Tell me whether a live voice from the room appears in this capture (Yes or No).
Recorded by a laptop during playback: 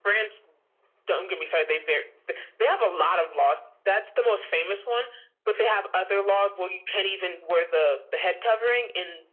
No